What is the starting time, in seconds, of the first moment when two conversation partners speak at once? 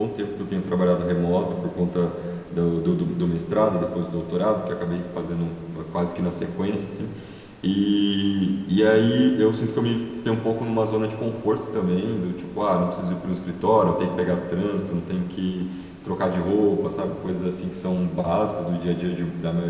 none

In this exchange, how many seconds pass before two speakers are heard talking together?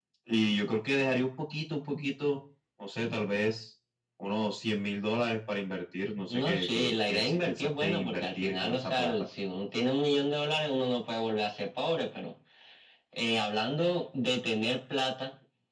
6.3 s

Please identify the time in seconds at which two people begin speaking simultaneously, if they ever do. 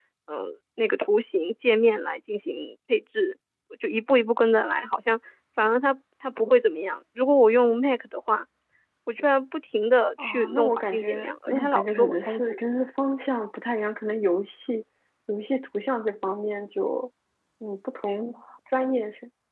10.2 s

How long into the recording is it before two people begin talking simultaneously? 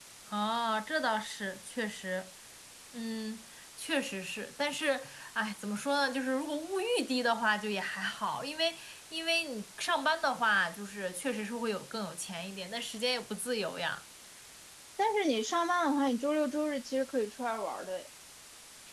none

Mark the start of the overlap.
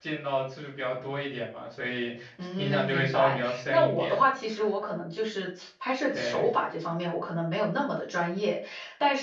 2.6 s

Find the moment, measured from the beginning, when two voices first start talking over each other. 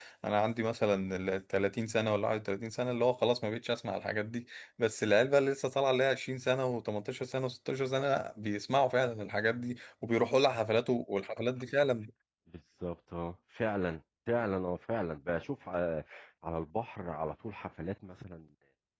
none

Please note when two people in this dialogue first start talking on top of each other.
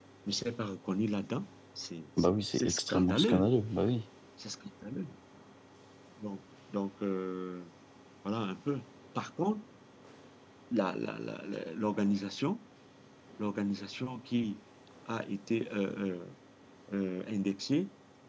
2.2 s

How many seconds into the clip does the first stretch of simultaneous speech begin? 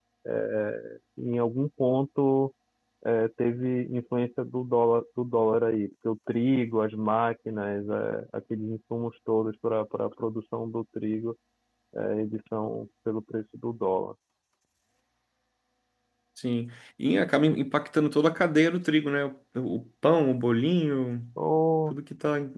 none

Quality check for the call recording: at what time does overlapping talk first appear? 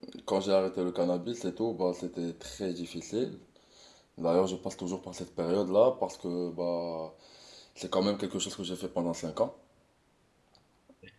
none

